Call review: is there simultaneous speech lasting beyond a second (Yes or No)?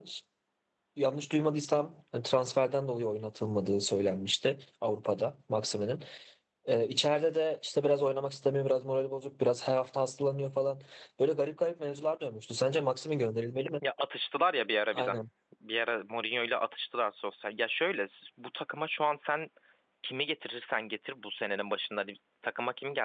No